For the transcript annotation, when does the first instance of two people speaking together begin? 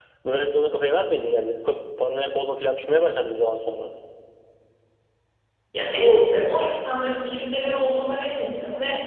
none

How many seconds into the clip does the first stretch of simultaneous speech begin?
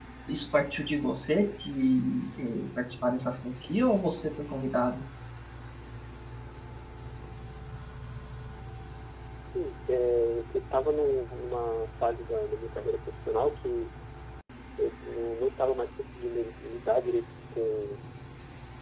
none

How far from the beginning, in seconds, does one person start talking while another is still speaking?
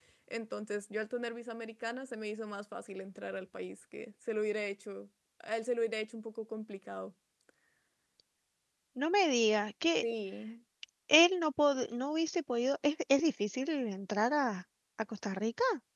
none

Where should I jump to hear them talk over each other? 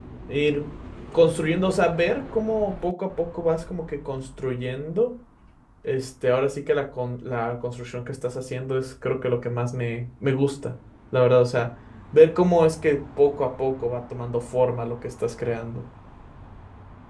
none

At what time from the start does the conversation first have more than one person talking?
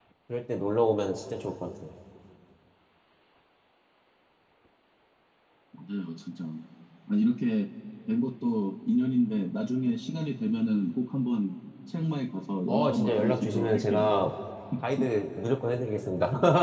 12.7 s

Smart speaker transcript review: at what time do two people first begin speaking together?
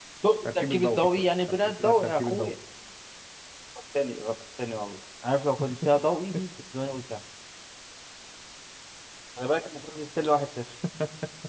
0.6 s

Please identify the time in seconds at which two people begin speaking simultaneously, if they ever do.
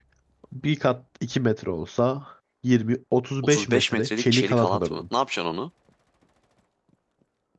3.4 s

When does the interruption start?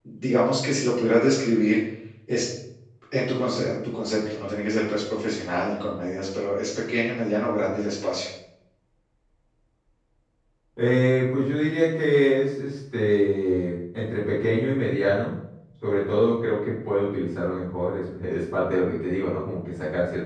none

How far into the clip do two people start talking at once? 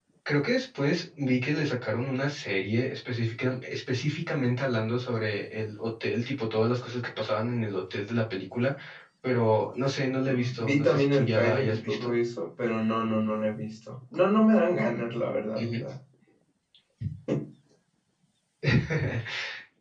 10.2 s

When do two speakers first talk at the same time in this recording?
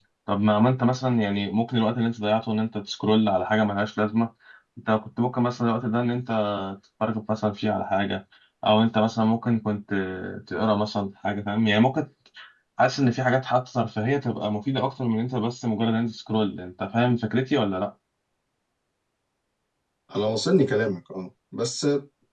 none

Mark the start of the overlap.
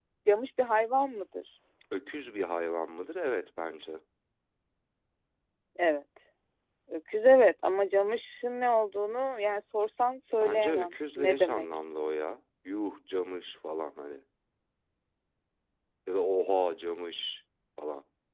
10.4 s

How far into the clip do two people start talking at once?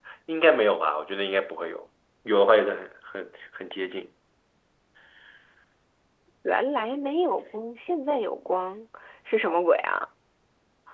none

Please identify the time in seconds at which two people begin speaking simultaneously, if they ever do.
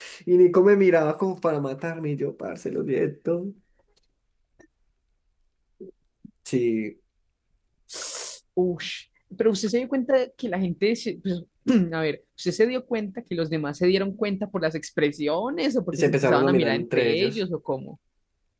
15.9 s

